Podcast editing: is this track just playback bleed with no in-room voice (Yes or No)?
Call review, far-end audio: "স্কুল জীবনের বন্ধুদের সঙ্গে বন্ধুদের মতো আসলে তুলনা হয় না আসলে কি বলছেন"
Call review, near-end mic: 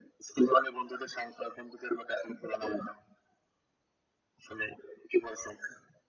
Yes